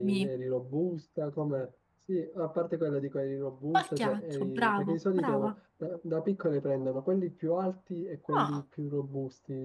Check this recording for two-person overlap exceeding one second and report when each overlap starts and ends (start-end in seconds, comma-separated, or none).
3.7-5.5